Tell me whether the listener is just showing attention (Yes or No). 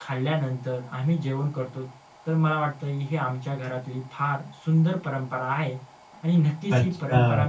Yes